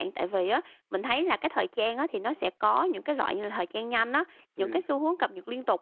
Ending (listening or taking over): listening